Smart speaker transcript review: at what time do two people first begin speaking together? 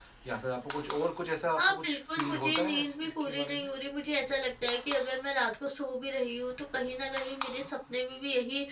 1.6 s

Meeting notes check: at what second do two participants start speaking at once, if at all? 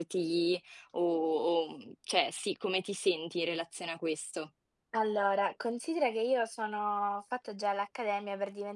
none

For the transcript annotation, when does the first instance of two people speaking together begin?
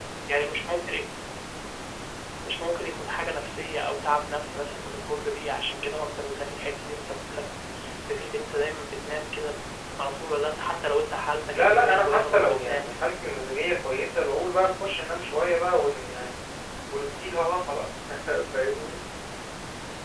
11.5 s

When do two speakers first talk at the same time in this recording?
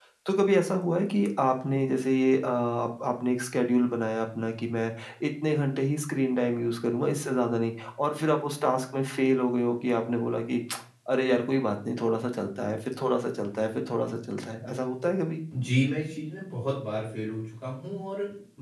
none

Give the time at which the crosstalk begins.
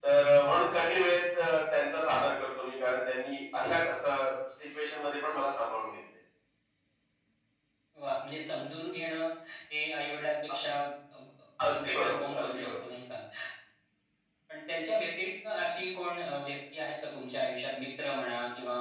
11.7 s

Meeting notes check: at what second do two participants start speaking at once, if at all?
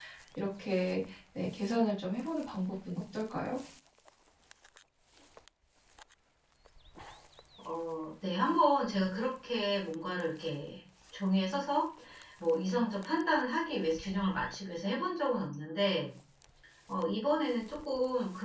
none

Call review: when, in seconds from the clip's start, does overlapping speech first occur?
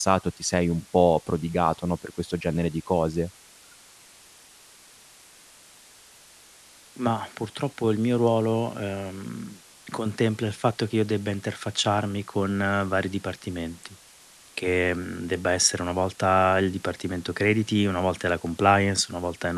none

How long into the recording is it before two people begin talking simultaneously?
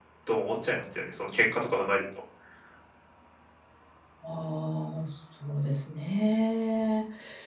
none

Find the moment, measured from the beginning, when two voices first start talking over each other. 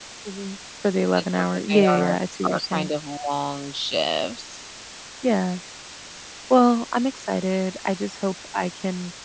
1.2 s

